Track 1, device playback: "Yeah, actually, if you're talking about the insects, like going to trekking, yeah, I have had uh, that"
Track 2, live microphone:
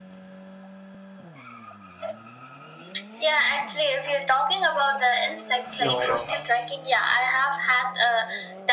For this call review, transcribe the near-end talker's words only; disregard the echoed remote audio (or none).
no i don't